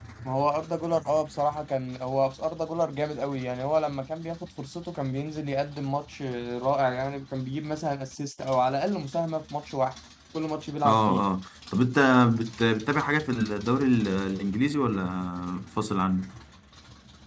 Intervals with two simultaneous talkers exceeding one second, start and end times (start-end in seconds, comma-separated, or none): none